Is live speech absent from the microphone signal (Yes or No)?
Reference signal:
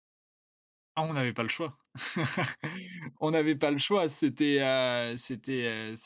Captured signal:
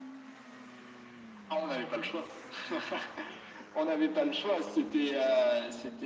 Yes